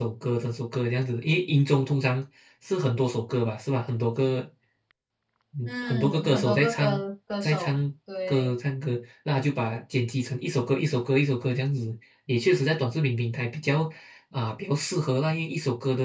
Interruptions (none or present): present